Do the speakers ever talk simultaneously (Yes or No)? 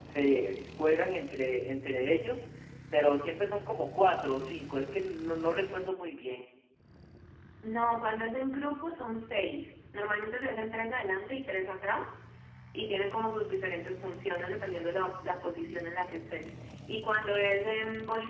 No